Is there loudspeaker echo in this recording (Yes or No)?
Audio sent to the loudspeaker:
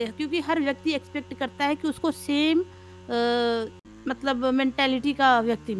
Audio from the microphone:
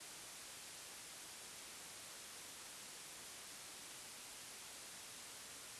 No